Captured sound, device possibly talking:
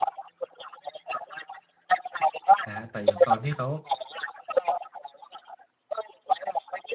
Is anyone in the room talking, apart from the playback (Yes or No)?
Yes